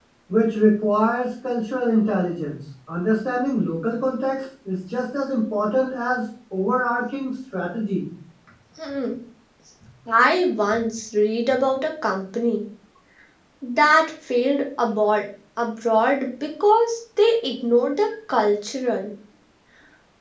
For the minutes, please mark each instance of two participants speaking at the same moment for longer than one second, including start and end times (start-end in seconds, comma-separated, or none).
none